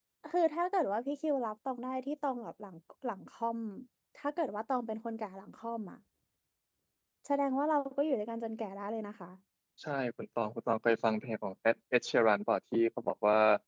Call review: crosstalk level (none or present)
none